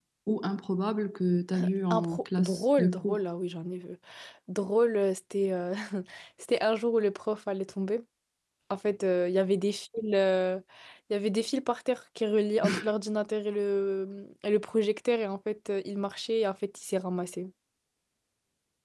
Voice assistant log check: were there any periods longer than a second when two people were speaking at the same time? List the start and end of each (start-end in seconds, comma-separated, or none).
1.9-3.2